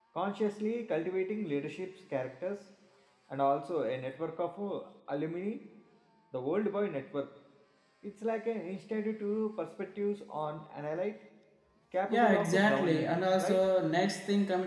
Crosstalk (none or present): present